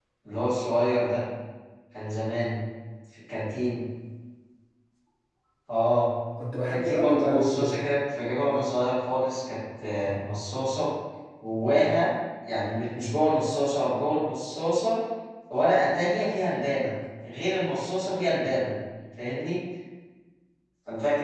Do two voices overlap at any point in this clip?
Yes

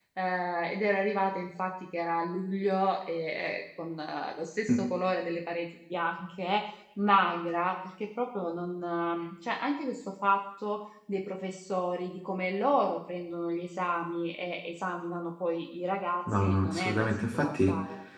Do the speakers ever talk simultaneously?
Yes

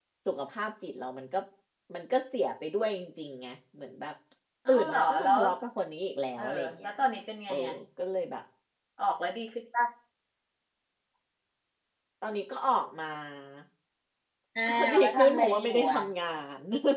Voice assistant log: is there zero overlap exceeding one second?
No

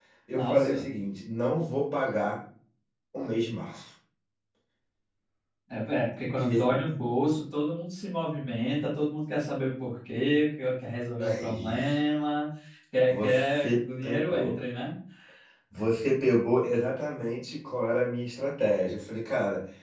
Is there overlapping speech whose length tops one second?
Yes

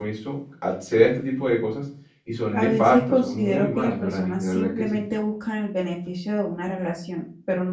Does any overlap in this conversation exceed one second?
Yes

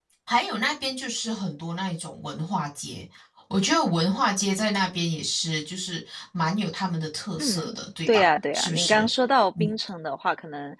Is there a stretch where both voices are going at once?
Yes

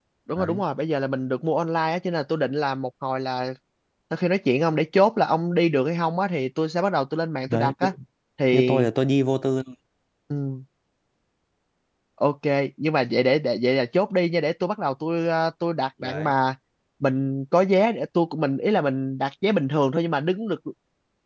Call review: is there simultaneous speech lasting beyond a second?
No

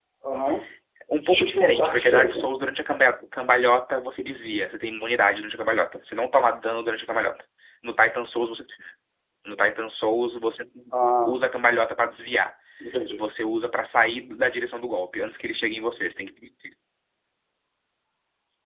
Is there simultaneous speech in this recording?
Yes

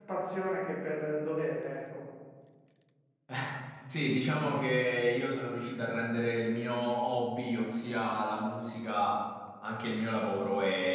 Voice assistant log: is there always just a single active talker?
Yes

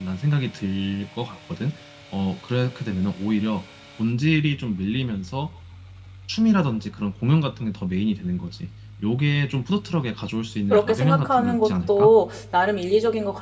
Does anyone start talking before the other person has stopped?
Yes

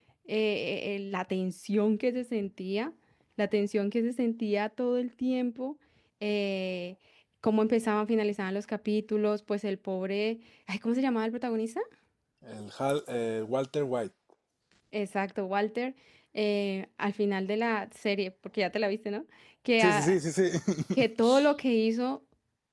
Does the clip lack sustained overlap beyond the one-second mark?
Yes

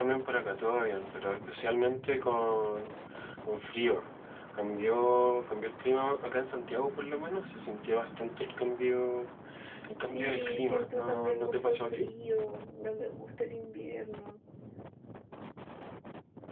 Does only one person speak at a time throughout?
No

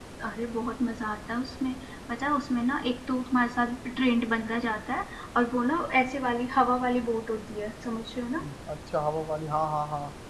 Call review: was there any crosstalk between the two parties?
No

